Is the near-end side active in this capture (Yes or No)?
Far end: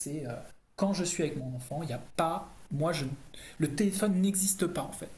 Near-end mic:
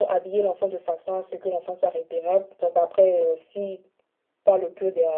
Yes